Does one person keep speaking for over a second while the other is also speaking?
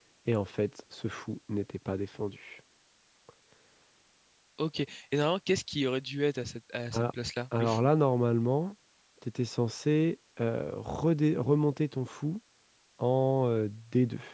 No

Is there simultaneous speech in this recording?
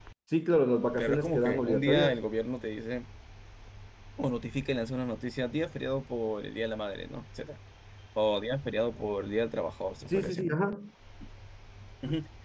Yes, from 1.0 s

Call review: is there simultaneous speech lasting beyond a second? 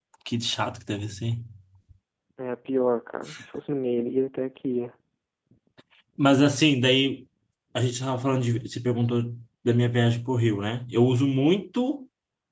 No

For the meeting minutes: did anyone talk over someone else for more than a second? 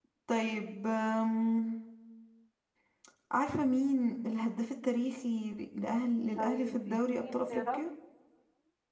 Yes, from 6.4 s

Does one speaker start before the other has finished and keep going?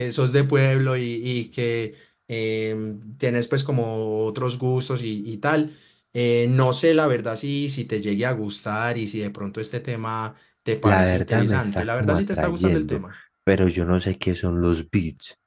Yes, from 10.8 s

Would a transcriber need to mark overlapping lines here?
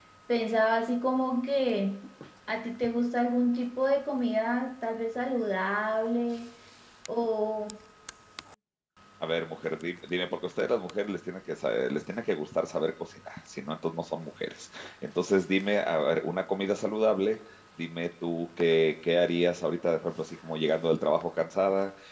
No

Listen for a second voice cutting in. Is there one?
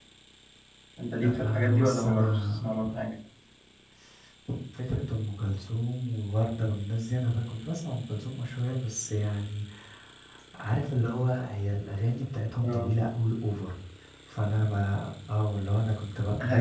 Yes, from 1.2 s

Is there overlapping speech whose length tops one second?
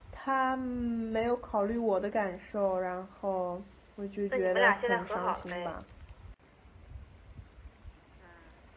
Yes, from 4.3 s

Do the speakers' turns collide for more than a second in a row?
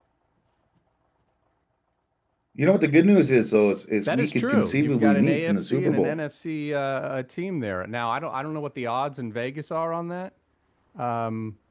Yes, from 4.1 s

